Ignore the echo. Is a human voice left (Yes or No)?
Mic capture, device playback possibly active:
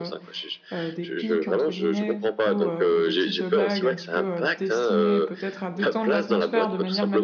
Yes